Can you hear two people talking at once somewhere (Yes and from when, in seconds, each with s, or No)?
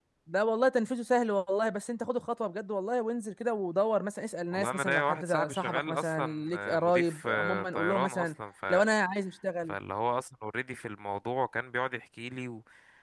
Yes, from 4.5 s